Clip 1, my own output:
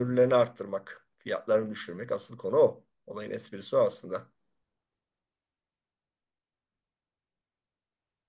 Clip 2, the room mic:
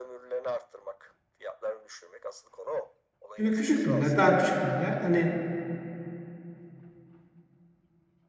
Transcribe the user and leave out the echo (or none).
Çünkü küçük piller, daha küçük piller. Hani